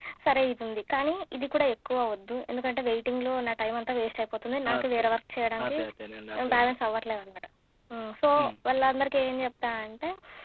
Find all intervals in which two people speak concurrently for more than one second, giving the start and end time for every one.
none

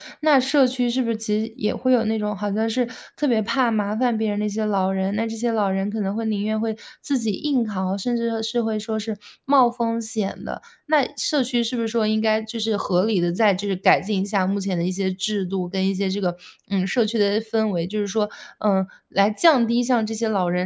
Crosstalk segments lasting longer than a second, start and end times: none

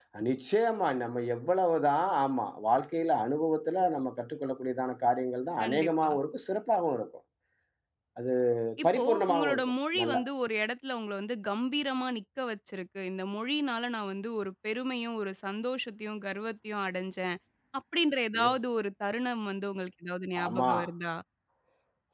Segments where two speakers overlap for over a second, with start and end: 8.9-10.2

